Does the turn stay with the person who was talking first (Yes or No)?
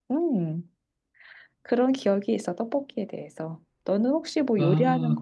No